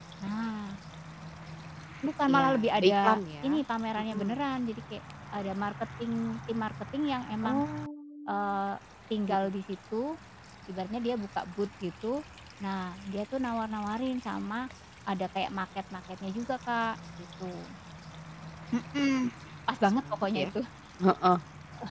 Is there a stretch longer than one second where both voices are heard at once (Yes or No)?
Yes